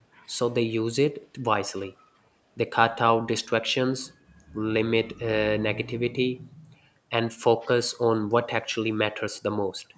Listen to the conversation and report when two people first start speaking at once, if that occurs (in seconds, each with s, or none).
none